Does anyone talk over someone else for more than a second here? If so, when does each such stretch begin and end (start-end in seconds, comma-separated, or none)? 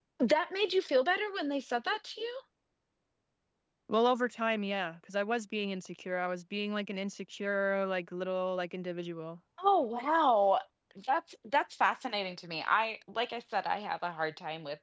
none